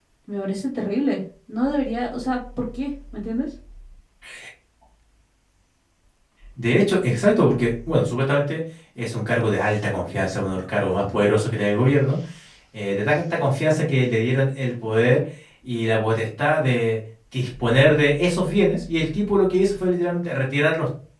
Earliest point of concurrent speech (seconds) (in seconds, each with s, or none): none